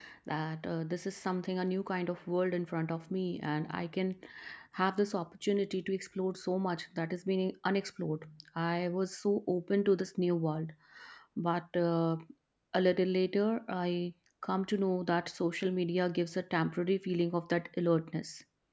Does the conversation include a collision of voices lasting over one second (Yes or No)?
No